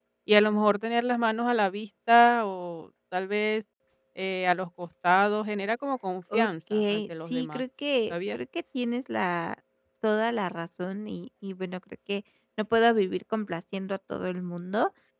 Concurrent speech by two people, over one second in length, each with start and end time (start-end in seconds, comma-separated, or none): 6.3-7.6